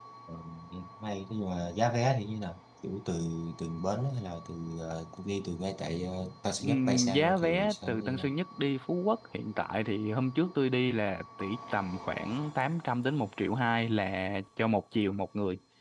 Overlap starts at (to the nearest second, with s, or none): 7 s